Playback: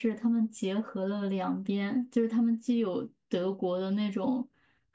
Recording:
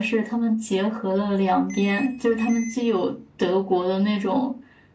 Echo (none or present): present